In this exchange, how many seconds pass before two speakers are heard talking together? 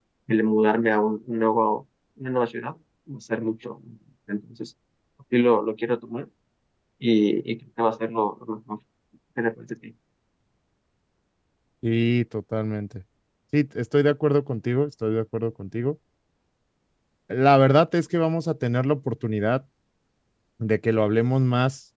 none

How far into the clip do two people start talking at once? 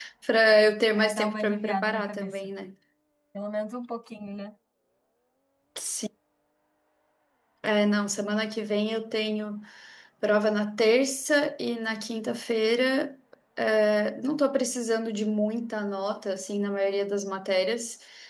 1 s

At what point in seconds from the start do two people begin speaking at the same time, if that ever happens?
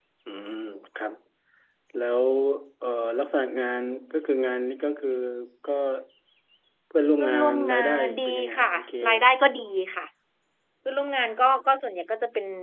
7 s

